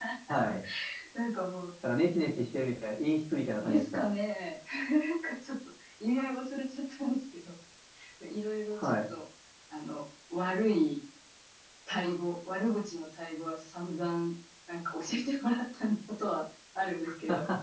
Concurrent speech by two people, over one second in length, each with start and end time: none

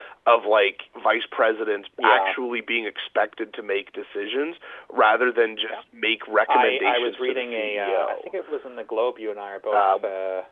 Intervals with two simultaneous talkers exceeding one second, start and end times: 6.5-8.3

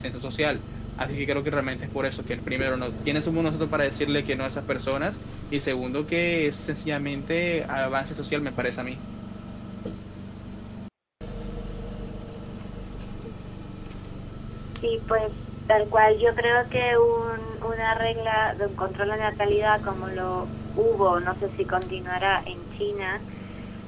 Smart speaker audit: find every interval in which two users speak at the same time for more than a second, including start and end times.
none

